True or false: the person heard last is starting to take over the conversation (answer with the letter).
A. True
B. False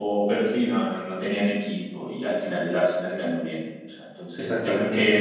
B